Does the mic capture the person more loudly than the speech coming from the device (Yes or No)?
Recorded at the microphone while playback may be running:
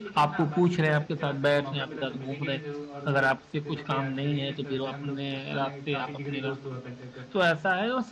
Yes